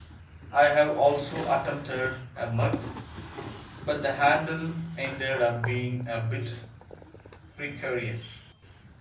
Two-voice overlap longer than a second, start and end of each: none

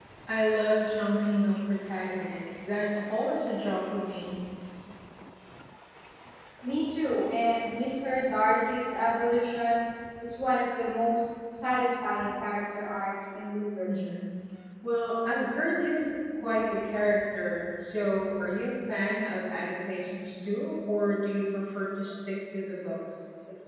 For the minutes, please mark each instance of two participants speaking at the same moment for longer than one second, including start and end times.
none

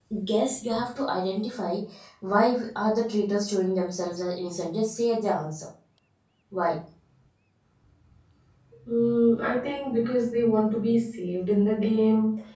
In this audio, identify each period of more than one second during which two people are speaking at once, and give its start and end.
none

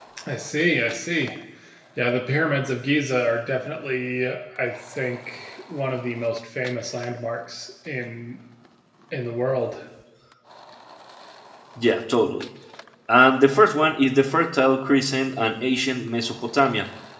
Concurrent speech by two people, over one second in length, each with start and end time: none

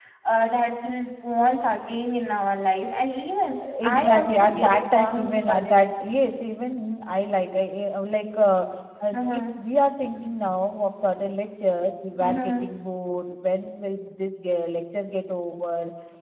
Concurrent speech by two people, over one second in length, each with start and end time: 3.8-5.8

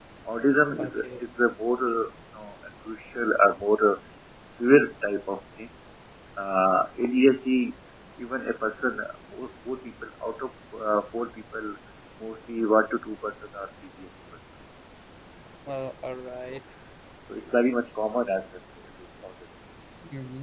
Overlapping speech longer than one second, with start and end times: none

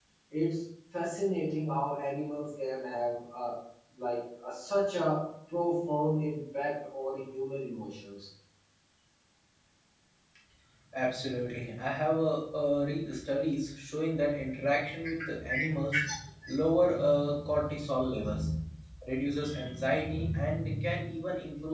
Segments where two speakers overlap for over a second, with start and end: none

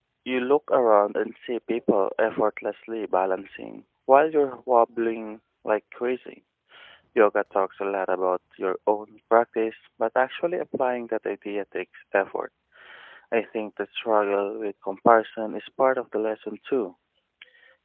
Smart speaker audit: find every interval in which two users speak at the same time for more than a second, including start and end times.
none

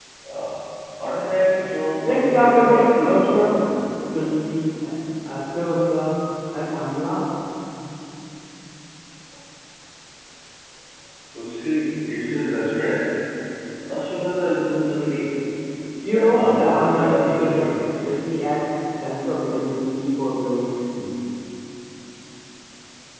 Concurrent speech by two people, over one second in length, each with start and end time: 2.0-3.6, 16.1-17.7

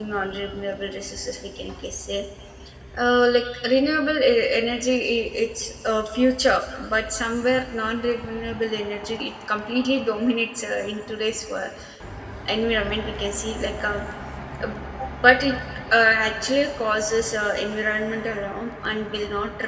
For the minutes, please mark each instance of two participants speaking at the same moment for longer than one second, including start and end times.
none

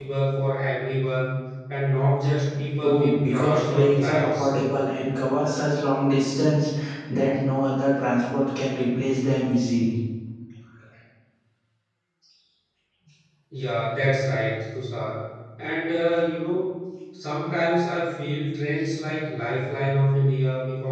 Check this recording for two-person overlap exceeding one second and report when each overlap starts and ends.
2.8-4.5

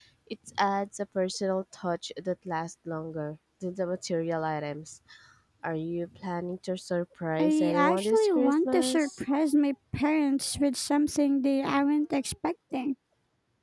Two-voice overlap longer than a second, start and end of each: 7.4-9.2

